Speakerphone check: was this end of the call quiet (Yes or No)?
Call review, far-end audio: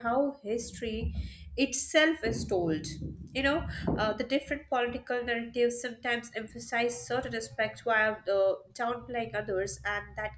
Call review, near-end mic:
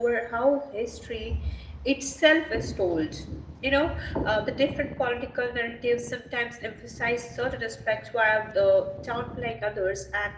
Yes